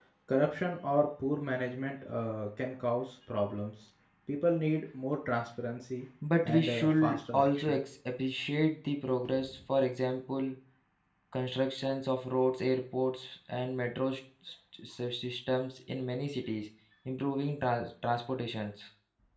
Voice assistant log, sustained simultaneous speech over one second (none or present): present